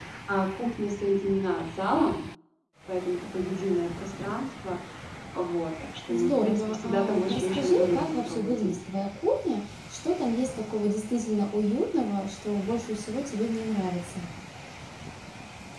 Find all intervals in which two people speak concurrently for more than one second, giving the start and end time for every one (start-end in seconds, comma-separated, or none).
6.1-8.8